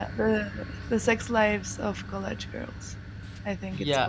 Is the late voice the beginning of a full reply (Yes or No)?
Yes